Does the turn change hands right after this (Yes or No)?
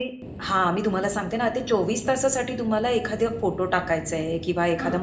No